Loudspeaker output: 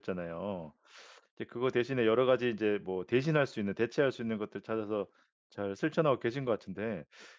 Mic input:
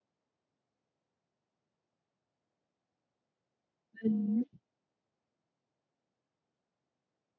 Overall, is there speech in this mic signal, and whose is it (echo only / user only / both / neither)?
user only